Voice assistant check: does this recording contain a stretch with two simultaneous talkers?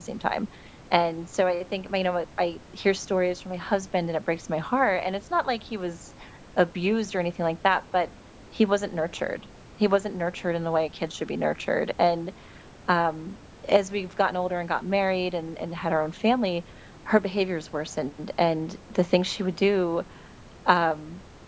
No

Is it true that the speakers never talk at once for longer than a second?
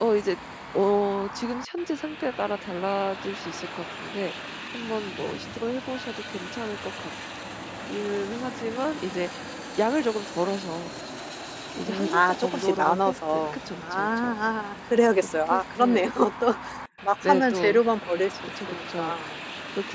No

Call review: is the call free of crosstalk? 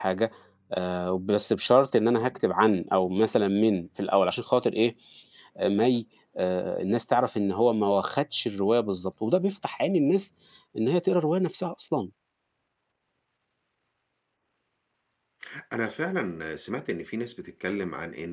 Yes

